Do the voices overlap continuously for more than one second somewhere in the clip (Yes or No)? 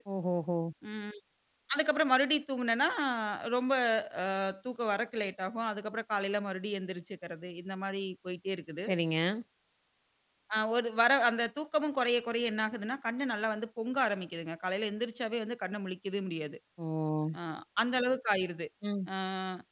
No